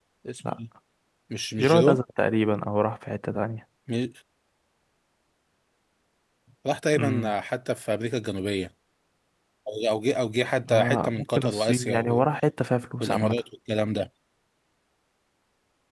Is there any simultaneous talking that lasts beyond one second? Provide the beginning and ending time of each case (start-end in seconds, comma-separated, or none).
10.7-12.2